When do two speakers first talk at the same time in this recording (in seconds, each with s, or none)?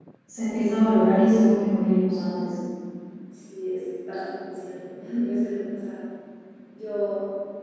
none